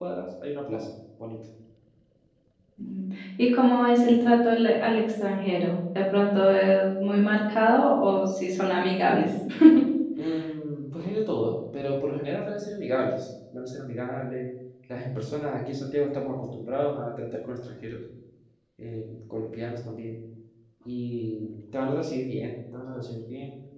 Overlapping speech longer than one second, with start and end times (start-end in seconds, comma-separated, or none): none